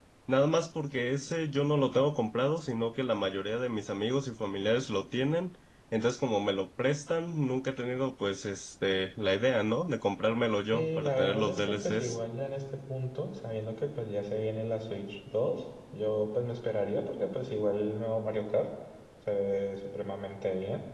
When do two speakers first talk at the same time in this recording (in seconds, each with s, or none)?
10.7 s